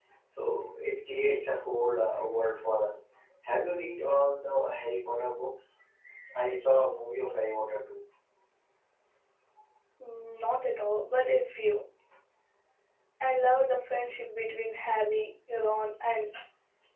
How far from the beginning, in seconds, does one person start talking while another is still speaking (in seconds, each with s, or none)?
none